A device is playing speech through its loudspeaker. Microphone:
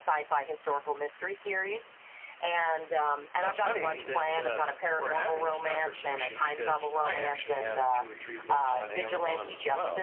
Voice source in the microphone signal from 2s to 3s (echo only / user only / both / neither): echo only